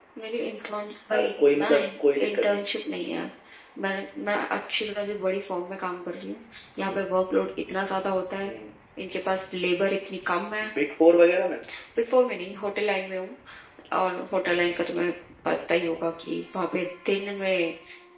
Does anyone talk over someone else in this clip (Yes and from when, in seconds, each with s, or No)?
Yes, from 1.1 s